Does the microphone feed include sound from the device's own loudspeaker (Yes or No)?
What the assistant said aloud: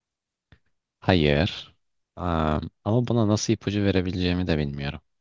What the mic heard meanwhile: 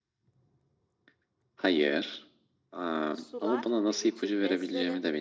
Yes